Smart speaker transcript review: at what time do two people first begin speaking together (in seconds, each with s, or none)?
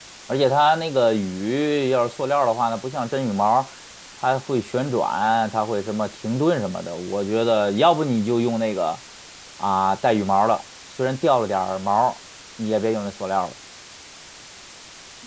none